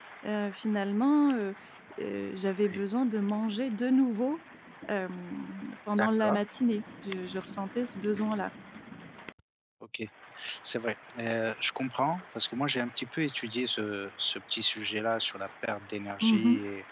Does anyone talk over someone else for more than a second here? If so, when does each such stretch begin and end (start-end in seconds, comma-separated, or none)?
none